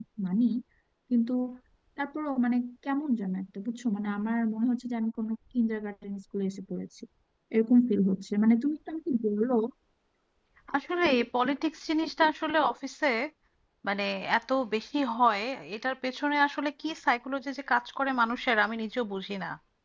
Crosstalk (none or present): none